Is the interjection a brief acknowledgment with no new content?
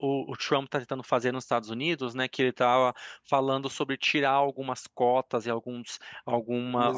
No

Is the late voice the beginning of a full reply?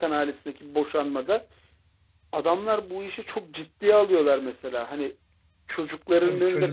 Yes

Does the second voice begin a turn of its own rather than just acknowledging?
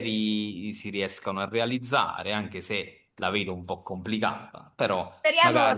Yes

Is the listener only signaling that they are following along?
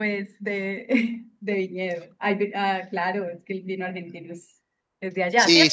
No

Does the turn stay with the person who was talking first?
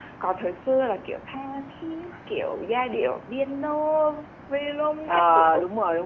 No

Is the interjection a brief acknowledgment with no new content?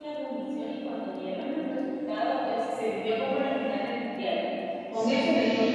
No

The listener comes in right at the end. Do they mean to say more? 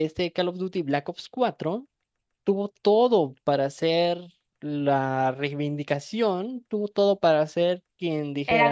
Yes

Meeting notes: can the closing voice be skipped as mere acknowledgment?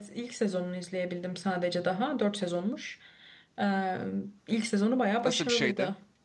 No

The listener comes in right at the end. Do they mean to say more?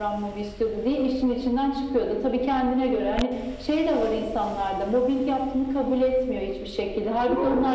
No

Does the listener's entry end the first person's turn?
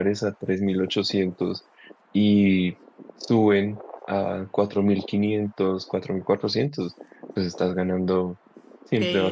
Yes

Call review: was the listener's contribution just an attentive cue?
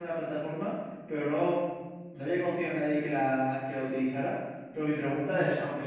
Yes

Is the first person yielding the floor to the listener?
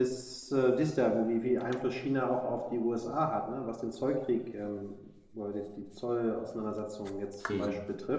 No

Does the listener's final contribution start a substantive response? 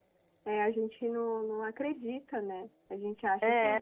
No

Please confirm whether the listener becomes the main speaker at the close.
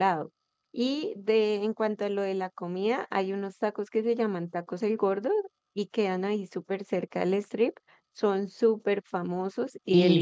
Yes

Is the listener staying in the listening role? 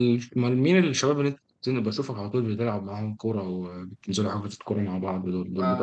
No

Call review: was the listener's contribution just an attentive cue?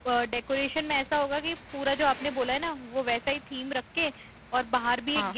Yes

